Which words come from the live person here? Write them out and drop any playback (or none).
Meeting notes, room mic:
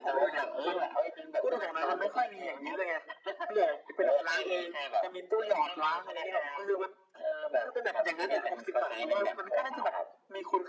none